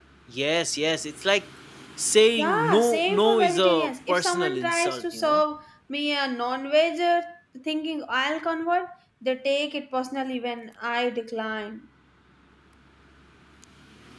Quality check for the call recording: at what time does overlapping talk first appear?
2.4 s

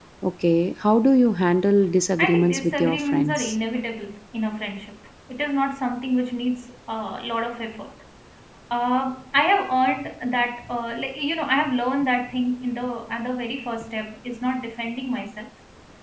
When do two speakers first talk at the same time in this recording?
2.2 s

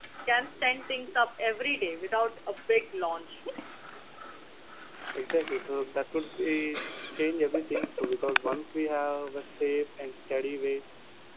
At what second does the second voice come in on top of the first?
none

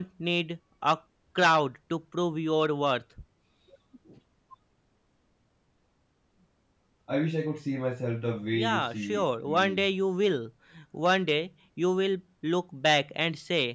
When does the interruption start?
8.5 s

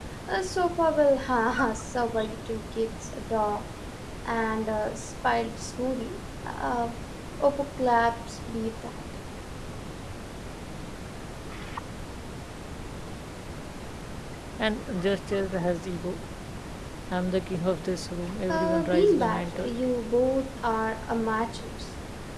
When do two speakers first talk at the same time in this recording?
18.5 s

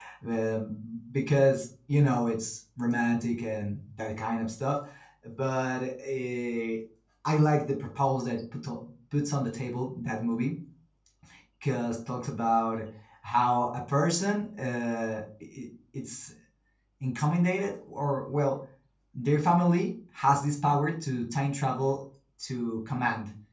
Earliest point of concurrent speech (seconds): none

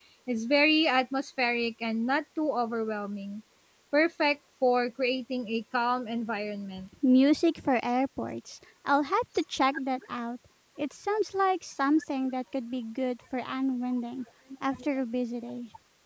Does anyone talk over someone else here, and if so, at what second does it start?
none

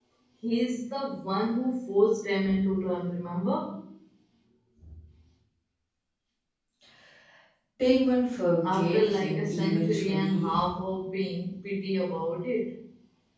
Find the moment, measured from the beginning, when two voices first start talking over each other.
8.6 s

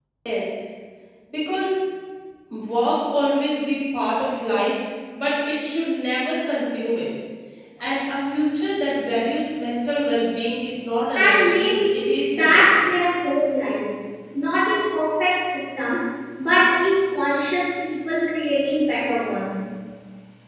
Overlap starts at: 11.2 s

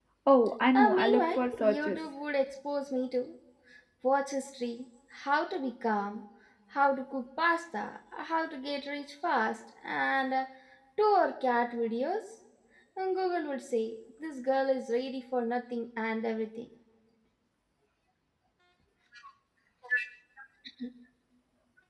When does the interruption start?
0.7 s

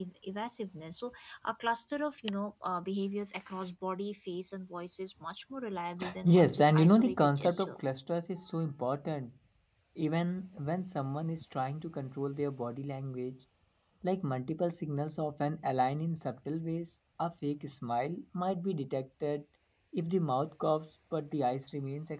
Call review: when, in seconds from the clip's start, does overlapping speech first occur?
6.0 s

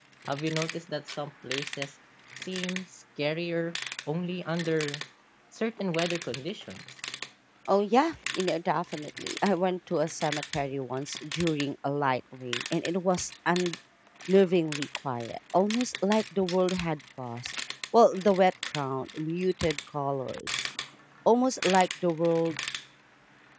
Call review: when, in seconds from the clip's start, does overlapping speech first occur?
none

